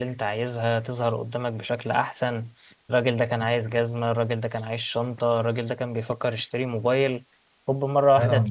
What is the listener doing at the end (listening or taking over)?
taking over